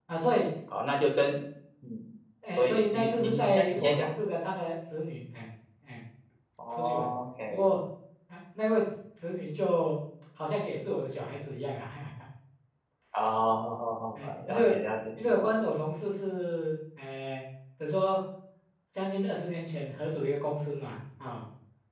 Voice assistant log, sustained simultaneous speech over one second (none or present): present